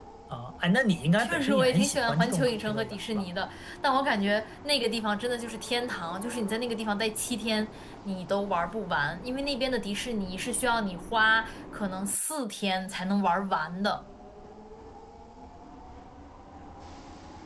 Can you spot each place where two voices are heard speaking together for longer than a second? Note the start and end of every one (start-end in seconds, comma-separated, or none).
1.2-3.2